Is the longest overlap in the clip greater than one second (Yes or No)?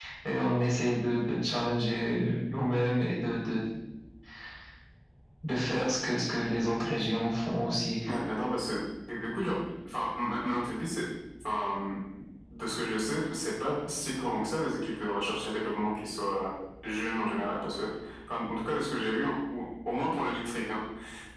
No